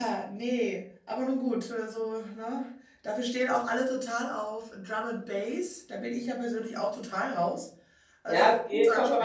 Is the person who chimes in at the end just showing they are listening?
No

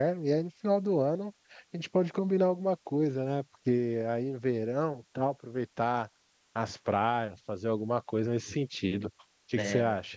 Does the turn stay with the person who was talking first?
No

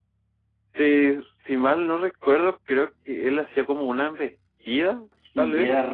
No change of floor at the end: No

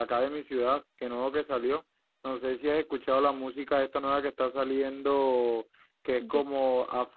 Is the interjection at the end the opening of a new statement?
No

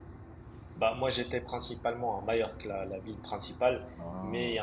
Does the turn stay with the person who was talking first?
Yes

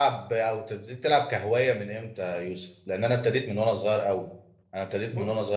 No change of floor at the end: Yes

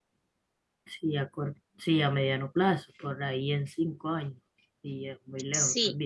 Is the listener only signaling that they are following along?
No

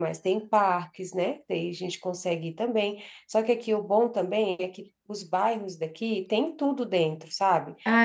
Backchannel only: No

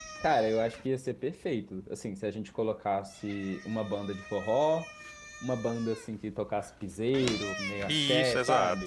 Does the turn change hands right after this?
Yes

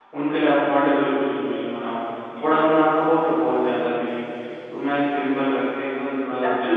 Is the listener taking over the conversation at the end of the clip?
Yes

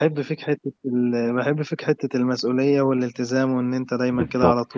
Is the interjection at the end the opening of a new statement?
Yes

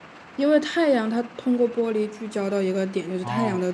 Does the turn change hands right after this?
No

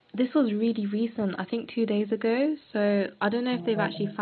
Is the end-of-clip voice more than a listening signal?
No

